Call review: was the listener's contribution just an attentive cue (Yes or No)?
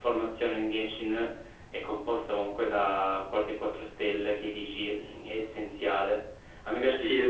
Yes